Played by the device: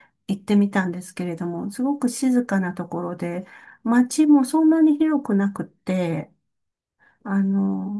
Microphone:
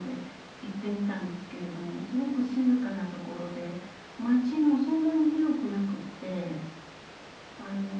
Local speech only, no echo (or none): none